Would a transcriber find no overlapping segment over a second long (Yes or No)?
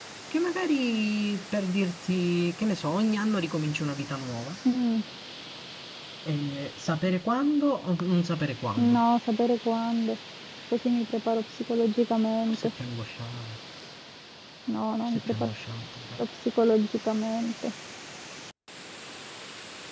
Yes